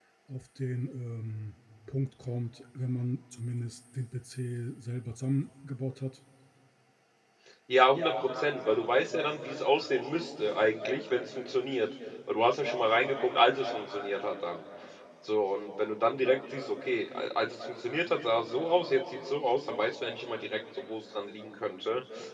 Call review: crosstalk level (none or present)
none